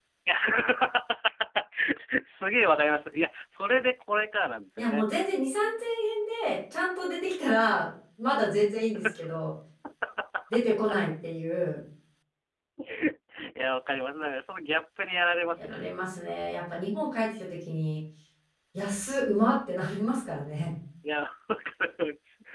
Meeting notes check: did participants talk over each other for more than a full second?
No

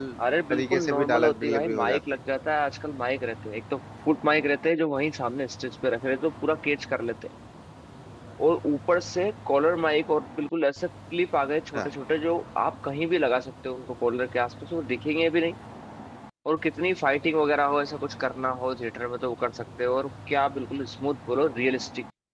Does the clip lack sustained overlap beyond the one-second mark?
No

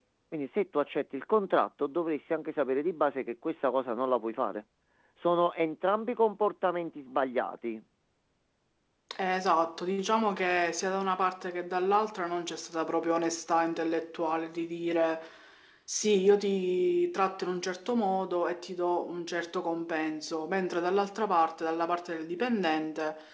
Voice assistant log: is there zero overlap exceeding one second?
Yes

